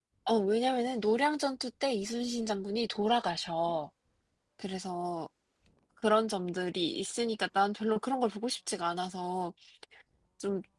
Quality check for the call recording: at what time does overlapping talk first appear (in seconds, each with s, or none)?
none